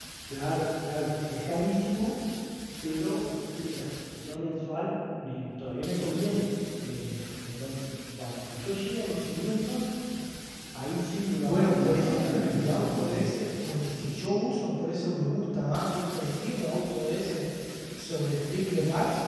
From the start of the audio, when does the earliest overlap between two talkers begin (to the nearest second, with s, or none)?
11 s